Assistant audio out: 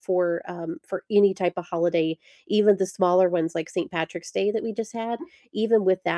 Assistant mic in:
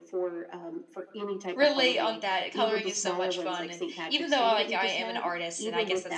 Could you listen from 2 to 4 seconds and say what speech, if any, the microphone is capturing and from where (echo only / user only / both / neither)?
both